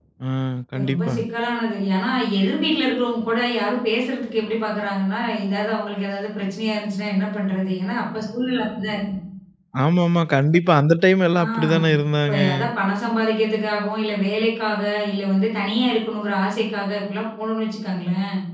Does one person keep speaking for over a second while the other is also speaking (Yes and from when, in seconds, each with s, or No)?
No